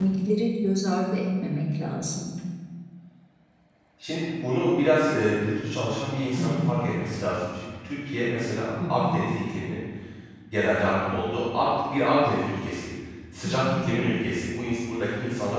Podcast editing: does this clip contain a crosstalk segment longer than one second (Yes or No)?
No